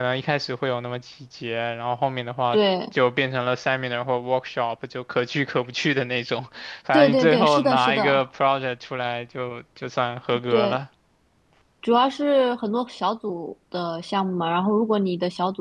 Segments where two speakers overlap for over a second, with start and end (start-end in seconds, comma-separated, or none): 6.9-8.2